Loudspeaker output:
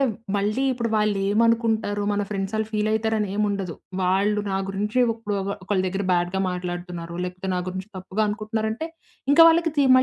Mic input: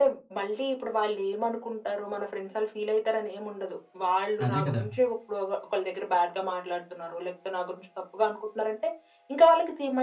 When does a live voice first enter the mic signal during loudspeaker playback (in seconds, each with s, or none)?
4.5 s